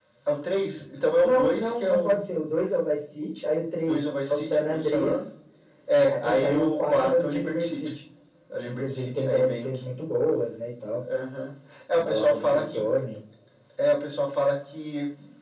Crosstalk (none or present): present